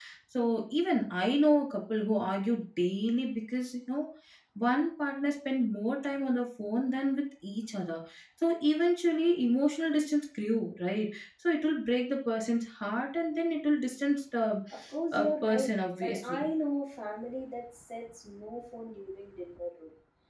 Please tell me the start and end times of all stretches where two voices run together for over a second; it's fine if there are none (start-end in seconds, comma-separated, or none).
15.1-16.5